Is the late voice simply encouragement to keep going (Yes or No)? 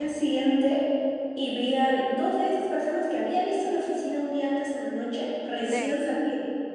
Yes